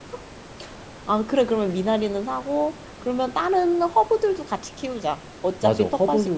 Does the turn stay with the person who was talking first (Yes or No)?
No